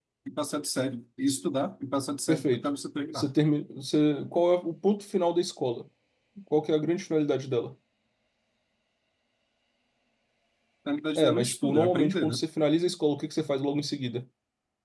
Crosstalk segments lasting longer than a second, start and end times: 11.2-12.4

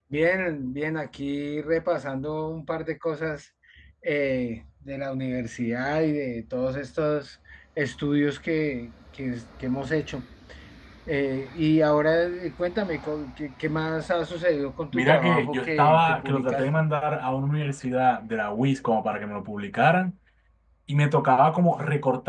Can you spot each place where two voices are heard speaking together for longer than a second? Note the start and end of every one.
14.9-16.6

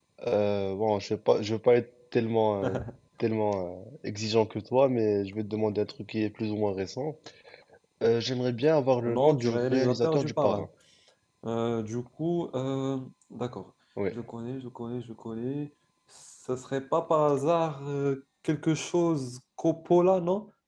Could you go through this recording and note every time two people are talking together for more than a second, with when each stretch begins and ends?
9.1-10.7

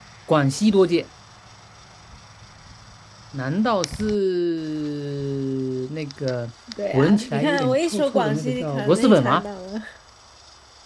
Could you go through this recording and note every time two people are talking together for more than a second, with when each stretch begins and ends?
6.9-9.4

